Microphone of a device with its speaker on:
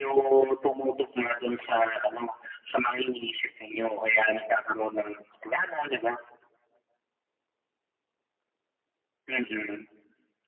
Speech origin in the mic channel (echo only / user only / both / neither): echo only